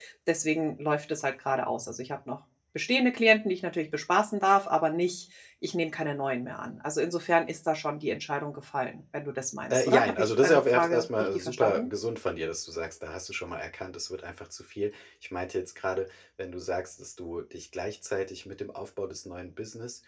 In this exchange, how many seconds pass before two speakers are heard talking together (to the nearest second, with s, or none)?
10 s